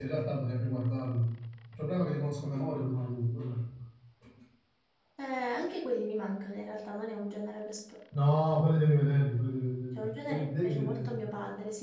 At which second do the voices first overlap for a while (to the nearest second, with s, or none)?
10 s